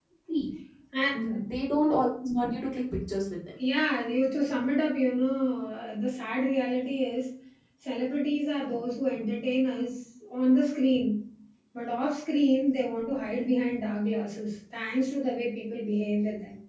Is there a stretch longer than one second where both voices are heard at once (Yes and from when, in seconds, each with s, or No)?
No